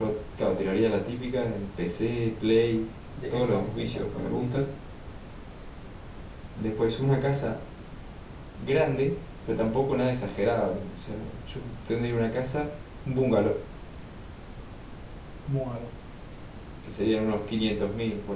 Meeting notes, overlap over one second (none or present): present